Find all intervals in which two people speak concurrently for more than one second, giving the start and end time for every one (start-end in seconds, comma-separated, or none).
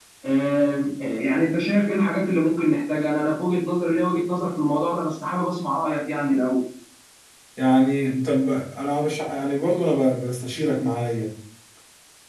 none